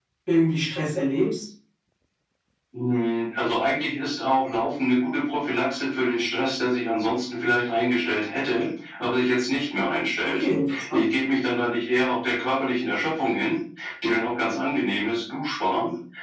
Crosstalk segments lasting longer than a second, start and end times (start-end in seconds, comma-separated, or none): none